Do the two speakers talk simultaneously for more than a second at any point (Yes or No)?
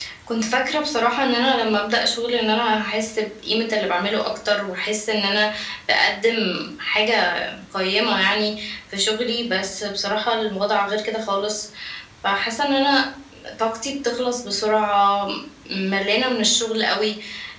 No